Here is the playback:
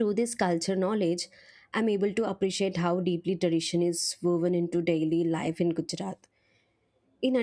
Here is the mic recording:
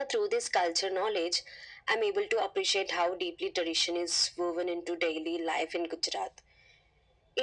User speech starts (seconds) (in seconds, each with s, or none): none